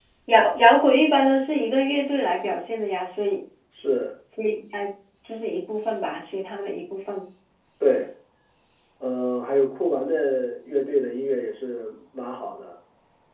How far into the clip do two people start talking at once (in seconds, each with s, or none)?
none